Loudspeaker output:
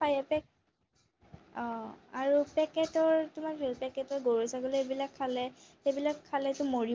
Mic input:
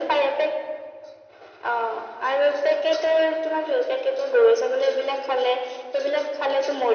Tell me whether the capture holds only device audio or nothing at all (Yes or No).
Yes